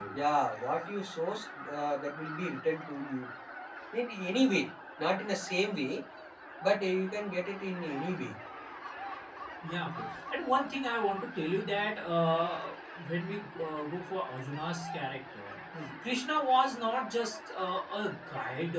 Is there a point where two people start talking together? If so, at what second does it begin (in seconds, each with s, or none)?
none